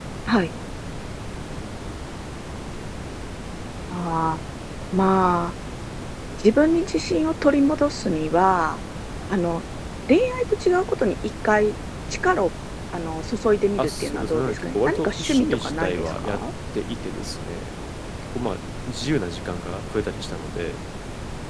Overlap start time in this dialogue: 14 s

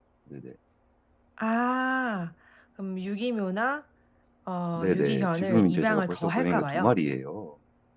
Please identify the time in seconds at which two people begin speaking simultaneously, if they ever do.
5 s

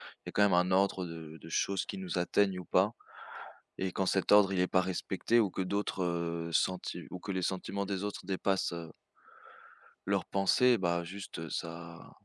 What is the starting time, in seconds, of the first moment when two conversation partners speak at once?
none

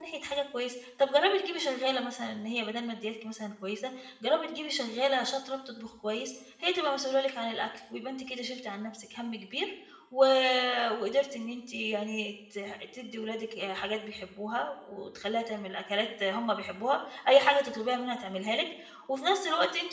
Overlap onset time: none

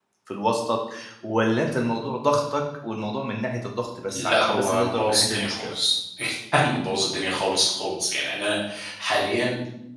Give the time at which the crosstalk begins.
4 s

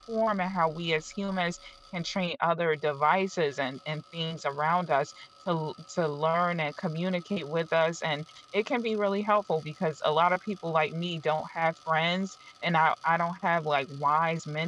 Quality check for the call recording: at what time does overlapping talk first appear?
none

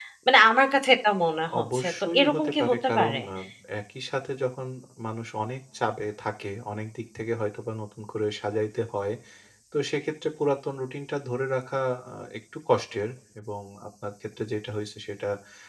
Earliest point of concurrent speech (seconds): 2 s

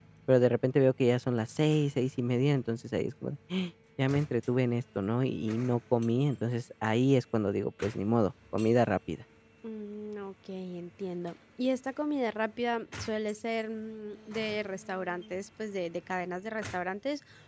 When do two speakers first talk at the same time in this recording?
none

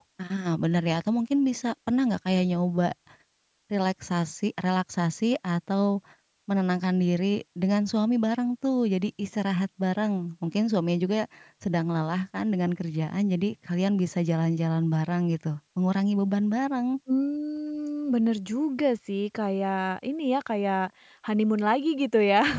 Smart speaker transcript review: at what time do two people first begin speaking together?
none

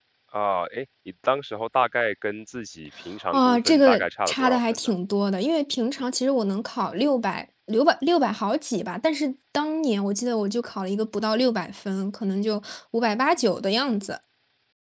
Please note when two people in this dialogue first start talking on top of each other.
3 s

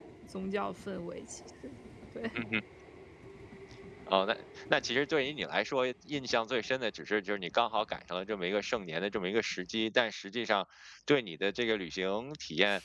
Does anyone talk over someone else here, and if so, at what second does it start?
none

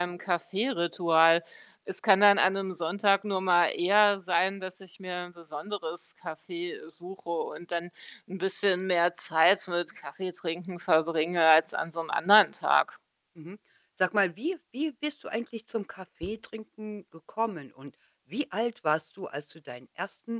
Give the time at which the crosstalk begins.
none

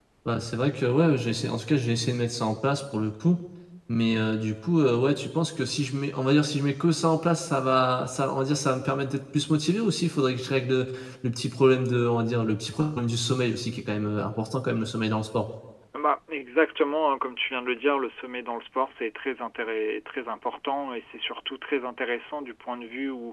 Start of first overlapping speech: none

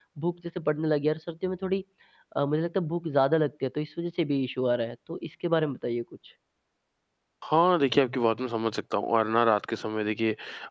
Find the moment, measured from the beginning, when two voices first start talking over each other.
none

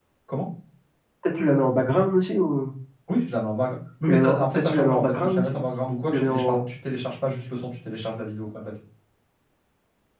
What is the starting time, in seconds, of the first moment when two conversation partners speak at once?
4 s

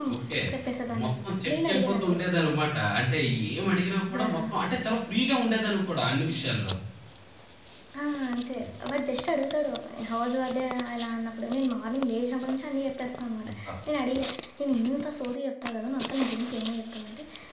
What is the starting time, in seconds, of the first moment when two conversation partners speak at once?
1 s

